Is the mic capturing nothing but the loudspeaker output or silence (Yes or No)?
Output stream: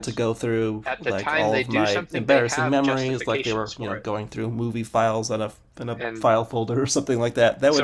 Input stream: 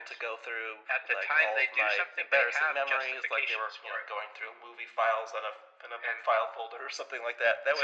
Yes